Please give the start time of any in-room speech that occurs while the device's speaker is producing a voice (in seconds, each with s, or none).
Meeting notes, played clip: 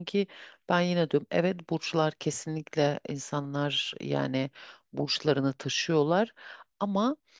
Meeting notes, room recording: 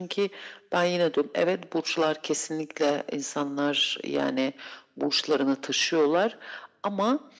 none